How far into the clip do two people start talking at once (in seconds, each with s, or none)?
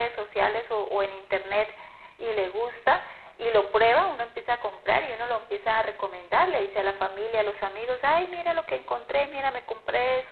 none